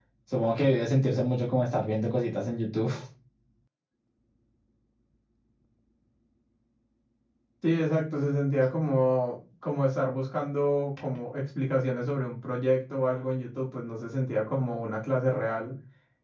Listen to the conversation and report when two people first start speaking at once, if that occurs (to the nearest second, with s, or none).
none